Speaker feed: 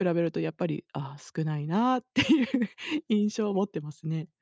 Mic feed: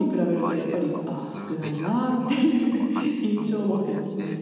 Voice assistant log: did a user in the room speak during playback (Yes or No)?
Yes